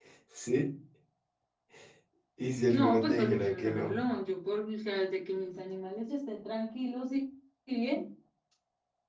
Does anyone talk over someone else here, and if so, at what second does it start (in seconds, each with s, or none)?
2.7 s